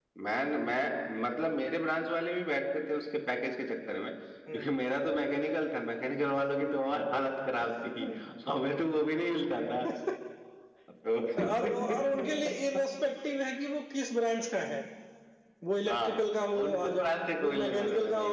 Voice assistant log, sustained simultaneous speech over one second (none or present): present